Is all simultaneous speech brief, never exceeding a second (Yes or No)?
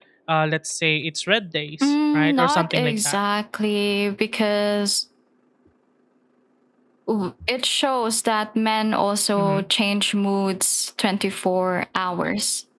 No